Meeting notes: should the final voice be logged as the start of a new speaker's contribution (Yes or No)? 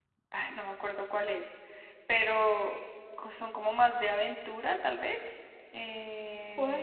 Yes